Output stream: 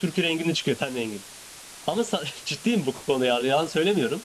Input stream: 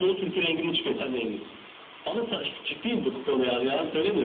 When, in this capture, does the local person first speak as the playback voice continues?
none

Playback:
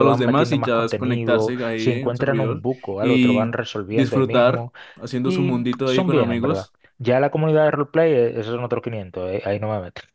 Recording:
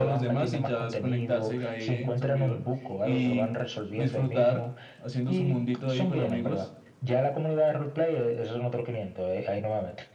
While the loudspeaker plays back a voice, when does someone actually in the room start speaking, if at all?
none

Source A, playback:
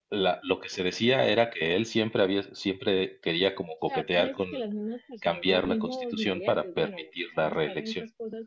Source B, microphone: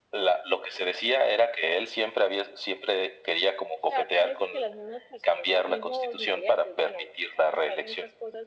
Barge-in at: none

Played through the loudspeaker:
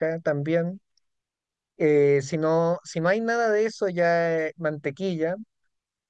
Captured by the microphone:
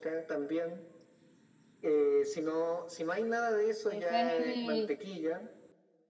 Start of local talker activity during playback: 3.9 s

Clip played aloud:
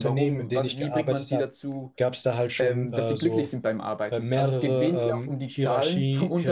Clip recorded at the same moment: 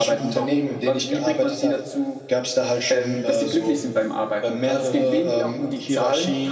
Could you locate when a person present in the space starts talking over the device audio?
none

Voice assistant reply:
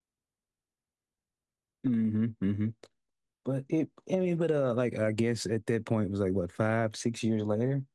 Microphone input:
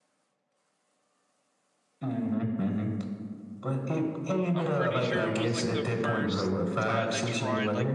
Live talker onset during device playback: 4.5 s

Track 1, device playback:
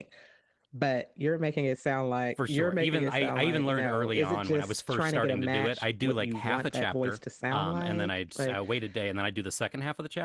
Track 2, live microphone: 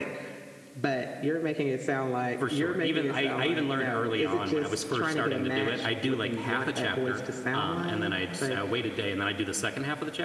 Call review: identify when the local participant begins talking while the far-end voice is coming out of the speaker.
none

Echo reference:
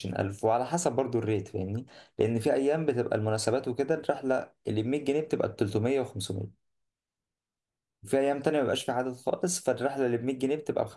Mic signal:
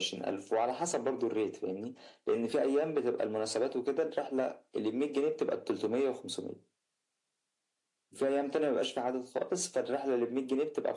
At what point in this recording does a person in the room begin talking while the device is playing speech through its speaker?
none

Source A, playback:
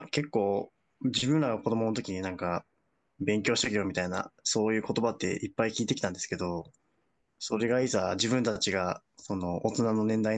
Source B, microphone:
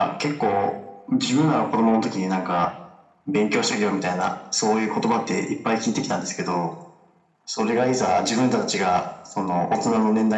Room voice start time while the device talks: none

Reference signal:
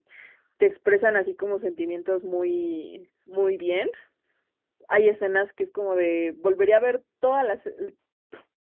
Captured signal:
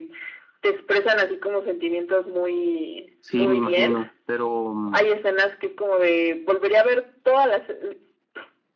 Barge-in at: 3.2 s

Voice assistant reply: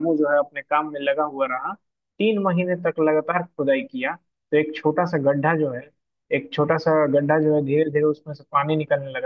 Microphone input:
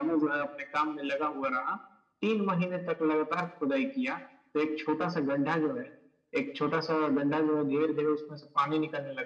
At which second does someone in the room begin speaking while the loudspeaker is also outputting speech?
none

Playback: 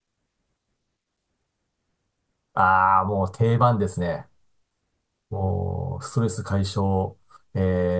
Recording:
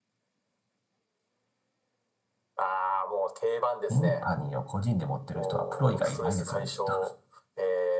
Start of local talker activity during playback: 3.9 s

